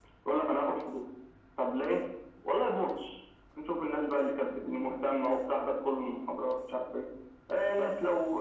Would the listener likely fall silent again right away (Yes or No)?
Yes